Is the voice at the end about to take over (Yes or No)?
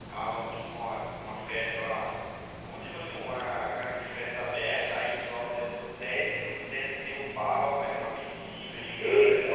No